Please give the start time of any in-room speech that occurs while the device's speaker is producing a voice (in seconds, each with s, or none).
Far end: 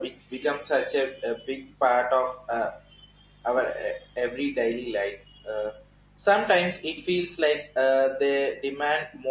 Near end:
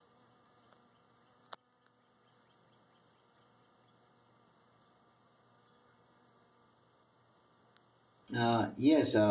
8.3 s